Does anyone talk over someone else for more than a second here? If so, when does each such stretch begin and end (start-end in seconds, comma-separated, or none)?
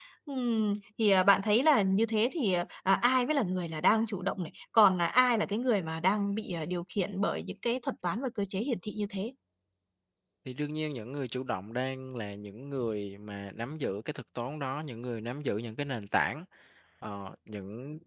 none